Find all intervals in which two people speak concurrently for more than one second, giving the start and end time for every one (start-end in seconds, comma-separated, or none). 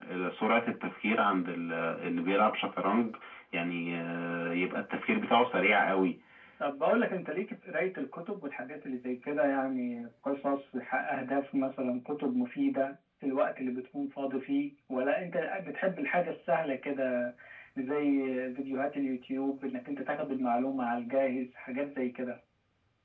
none